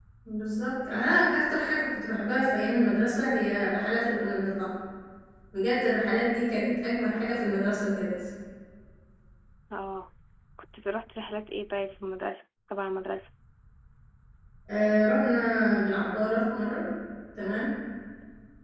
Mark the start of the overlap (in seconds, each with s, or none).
none